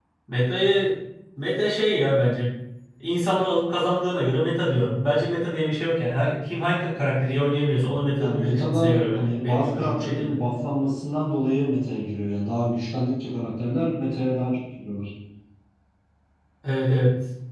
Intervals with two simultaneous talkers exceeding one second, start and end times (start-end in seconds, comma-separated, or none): 8.2-10.4